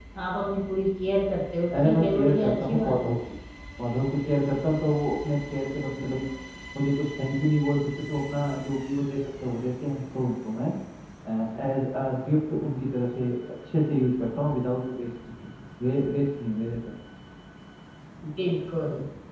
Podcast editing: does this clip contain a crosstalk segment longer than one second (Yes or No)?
Yes